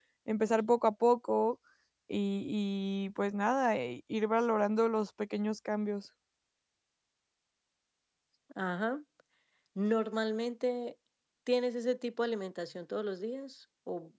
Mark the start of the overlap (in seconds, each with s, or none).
none